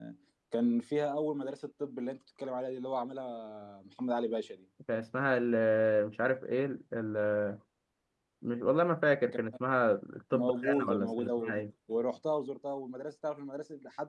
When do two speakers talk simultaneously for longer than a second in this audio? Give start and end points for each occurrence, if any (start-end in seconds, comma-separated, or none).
10.3-11.5